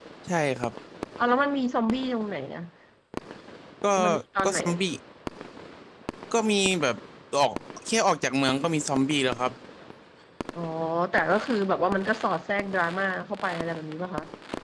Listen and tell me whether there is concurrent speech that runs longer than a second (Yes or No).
No